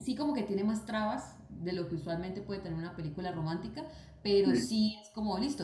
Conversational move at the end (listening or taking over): listening